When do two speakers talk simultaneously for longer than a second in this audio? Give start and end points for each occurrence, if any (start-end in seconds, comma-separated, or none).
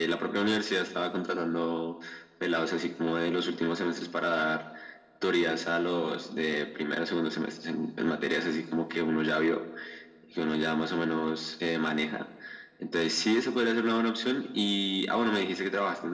none